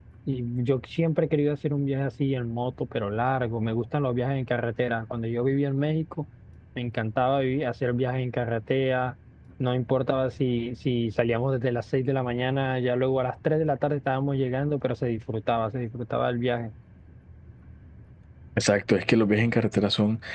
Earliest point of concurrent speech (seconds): none

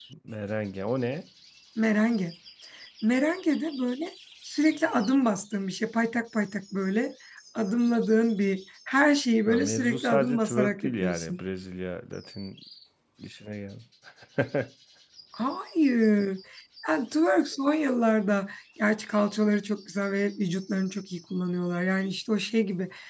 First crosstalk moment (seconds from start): 9.5 s

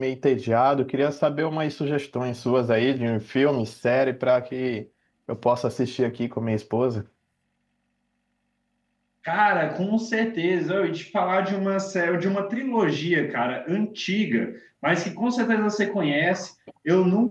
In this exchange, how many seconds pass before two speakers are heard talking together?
none

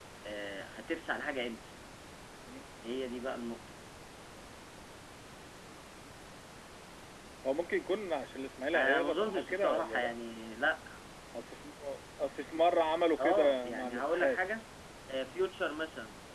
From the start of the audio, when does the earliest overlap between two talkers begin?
8.8 s

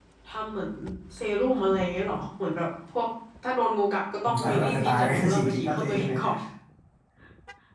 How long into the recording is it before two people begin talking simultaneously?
4.2 s

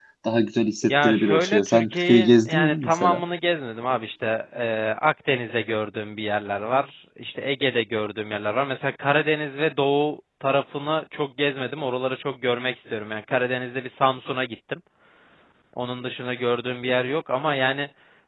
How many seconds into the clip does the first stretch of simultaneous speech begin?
0.8 s

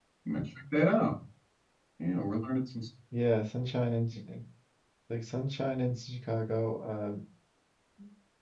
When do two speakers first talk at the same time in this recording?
none

